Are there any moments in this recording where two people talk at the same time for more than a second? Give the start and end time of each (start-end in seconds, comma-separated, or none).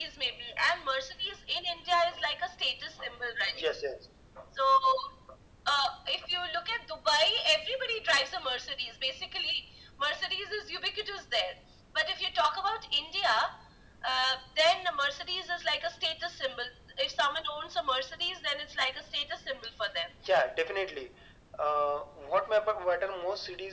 none